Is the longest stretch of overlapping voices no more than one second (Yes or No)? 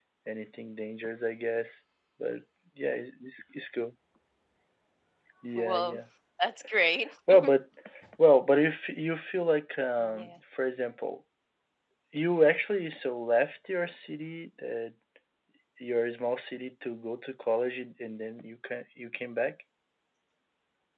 Yes